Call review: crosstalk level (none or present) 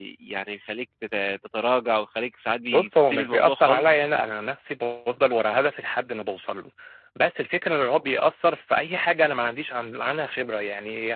present